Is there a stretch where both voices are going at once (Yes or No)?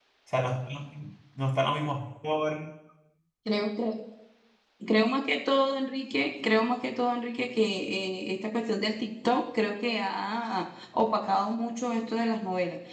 No